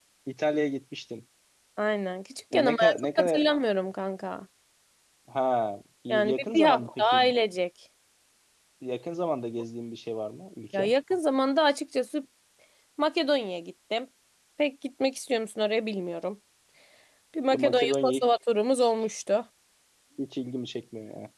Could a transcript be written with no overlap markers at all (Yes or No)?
No